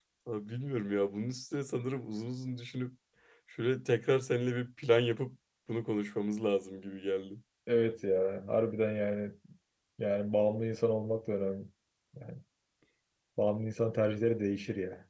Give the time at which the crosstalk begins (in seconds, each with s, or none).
none